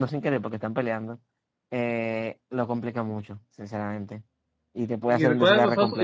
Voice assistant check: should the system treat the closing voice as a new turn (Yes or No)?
Yes